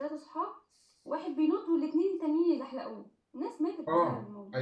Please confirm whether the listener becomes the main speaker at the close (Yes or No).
Yes